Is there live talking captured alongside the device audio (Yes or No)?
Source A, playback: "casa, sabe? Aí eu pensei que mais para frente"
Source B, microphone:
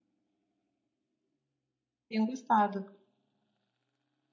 Yes